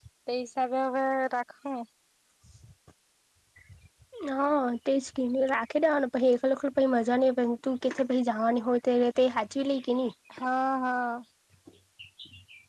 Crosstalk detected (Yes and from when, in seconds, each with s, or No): No